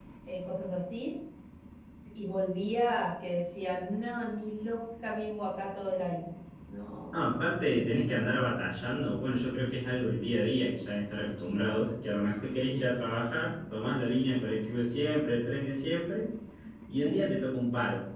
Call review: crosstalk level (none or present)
none